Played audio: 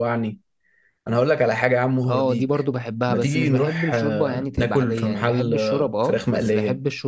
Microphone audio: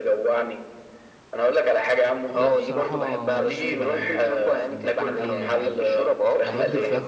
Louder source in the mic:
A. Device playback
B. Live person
A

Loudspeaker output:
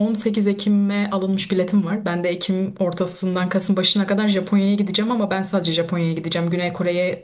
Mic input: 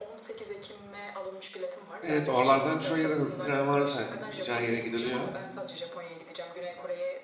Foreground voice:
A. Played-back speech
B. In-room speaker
B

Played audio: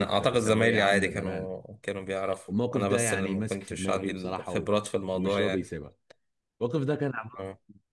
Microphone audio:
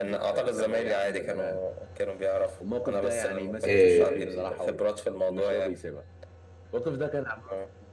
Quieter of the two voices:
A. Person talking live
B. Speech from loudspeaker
B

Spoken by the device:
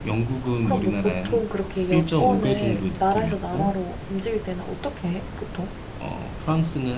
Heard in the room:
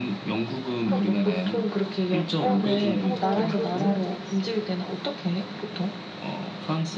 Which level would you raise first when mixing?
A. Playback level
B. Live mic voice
B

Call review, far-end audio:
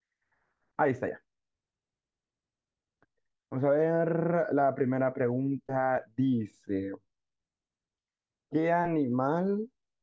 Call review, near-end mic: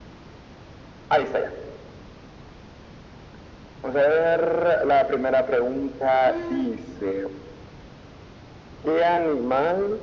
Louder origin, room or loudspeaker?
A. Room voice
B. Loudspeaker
B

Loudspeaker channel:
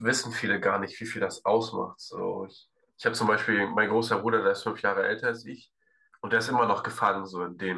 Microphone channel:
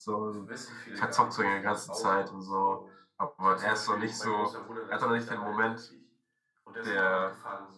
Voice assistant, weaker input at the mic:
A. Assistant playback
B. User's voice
A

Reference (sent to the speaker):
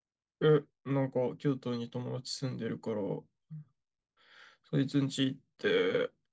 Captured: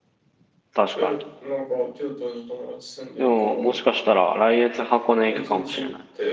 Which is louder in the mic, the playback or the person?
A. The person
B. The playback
A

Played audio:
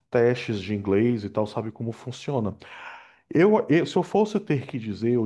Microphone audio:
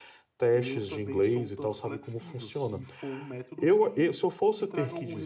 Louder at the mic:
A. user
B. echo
B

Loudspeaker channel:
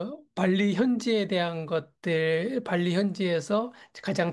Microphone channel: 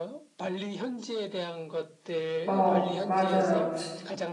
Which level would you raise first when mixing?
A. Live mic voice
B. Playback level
B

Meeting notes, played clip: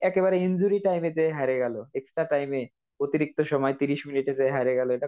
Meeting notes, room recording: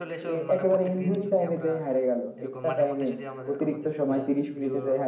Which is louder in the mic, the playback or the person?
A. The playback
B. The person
A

